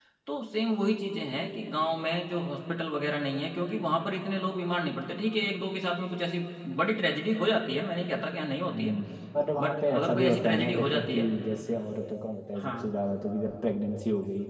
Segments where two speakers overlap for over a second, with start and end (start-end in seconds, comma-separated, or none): 9.6-11.2